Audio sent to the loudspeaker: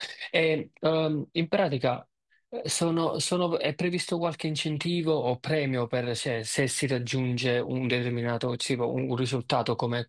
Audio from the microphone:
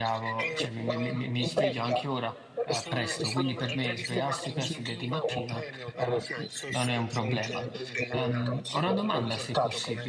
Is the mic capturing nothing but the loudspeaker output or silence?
No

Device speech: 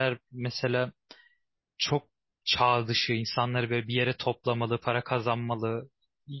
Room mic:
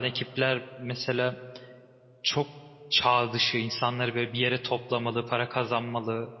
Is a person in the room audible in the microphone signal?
No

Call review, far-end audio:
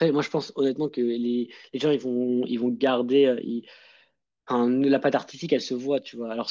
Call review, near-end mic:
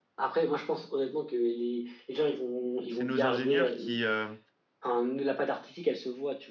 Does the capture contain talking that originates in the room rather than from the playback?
Yes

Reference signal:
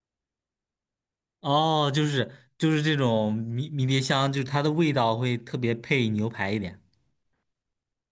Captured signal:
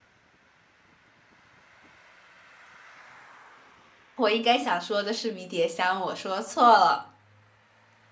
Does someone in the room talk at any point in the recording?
Yes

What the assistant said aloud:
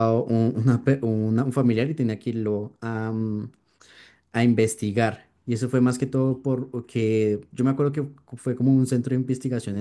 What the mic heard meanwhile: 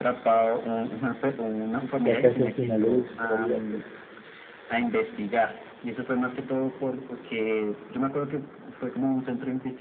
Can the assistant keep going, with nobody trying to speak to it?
No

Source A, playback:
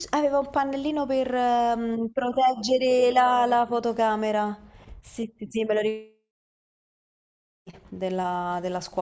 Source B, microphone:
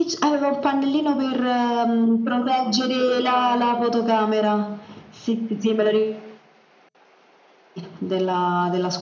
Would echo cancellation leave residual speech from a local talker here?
No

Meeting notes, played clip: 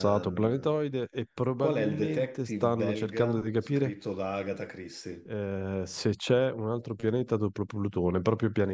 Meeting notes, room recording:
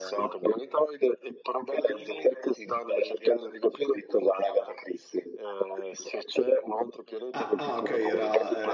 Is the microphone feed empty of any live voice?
No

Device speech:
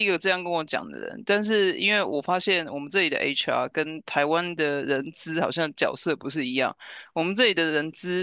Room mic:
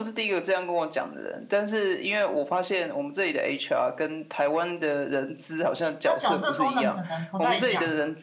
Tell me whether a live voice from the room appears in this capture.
Yes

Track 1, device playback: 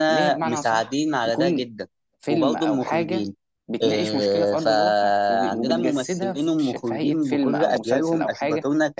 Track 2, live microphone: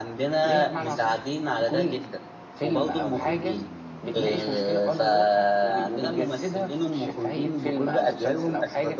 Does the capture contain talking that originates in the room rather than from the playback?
No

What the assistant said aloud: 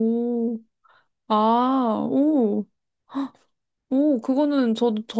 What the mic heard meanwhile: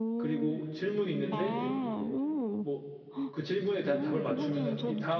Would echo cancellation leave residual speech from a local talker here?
Yes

